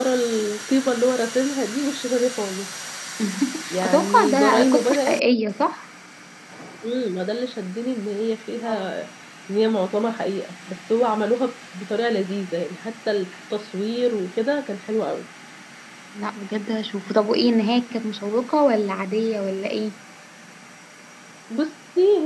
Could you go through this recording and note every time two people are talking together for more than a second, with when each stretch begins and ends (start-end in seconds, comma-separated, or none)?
3.8-5.2